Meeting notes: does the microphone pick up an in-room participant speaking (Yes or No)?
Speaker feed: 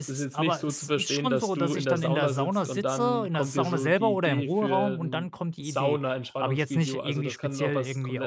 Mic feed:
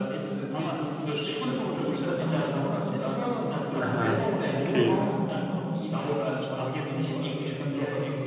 Yes